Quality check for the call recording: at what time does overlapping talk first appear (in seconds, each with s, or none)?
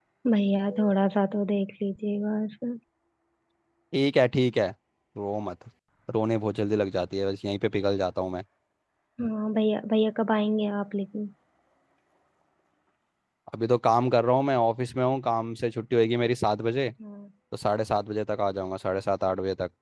none